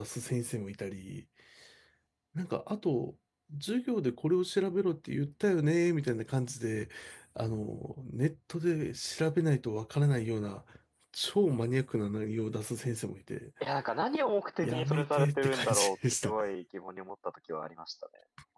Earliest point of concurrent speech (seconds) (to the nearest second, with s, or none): 15 s